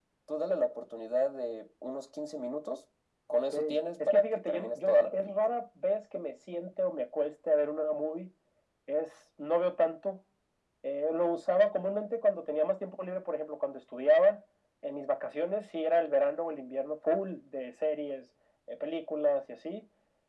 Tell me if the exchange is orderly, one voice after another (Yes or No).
No